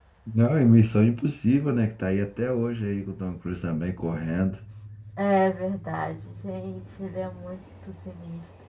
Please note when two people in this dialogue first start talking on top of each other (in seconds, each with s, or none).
none